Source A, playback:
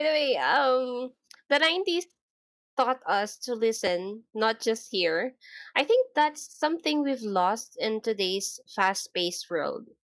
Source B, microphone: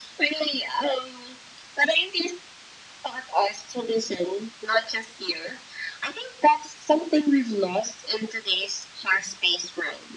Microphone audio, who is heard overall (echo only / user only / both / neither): echo only